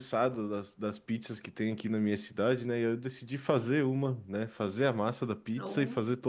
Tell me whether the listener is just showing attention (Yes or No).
Yes